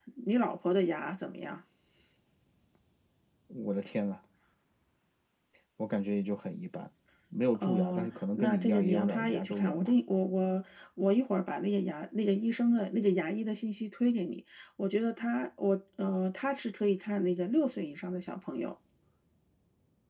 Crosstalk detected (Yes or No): Yes